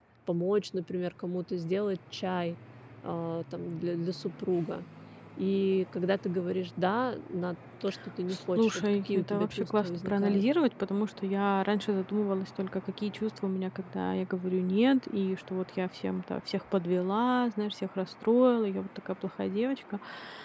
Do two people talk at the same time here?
Yes, from 8.6 s

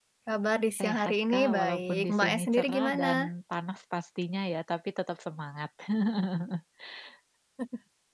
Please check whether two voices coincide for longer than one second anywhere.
Yes, from 0.8 s

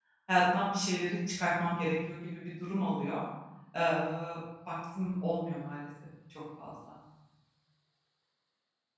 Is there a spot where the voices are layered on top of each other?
No

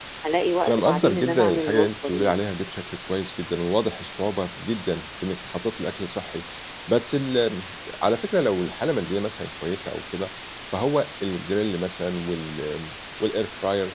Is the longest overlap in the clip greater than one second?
Yes, from 0.7 s

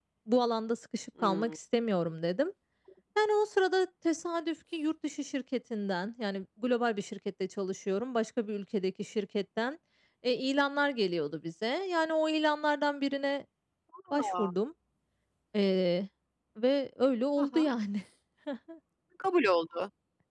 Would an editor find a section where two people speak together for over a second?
No

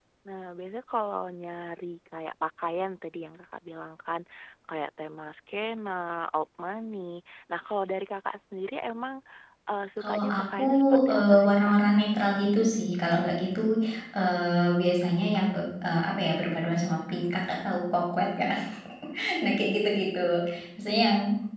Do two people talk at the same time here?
Yes, from 10.0 s

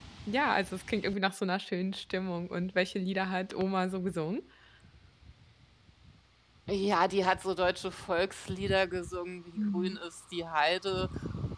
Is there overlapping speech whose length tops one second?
No

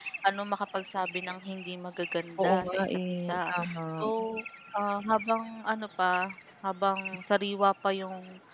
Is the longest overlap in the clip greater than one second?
Yes, from 2.4 s

